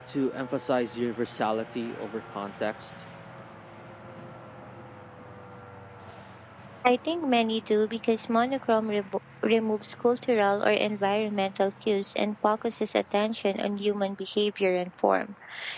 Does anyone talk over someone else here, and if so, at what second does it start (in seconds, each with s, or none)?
none